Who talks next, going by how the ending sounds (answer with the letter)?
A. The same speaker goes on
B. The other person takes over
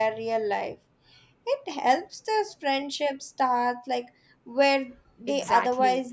B